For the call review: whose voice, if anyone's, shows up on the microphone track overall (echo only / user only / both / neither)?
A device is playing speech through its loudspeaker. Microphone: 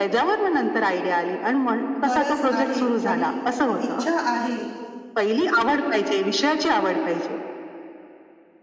both